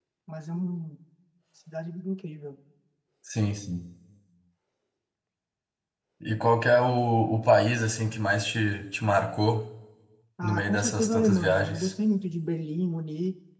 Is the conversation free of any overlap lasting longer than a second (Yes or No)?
No